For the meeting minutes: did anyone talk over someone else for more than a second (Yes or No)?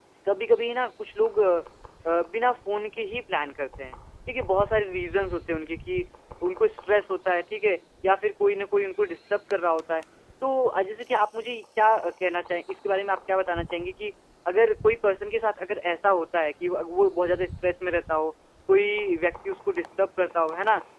No